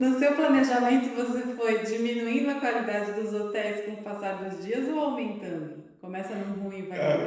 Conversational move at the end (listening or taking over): taking over